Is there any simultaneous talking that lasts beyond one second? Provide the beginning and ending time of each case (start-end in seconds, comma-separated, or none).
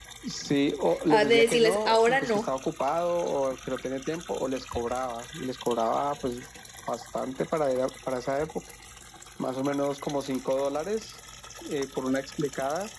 1.1-2.5